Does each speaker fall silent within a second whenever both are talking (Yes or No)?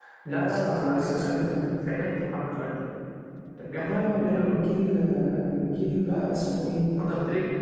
No